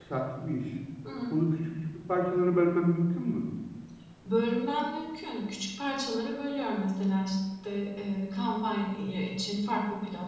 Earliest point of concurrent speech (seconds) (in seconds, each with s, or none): none